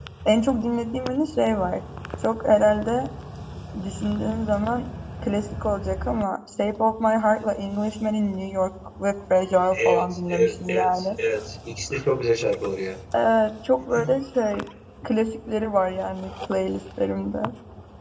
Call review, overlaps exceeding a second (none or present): present